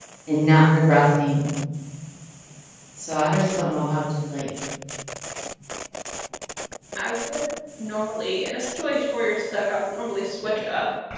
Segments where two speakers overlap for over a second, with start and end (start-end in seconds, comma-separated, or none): none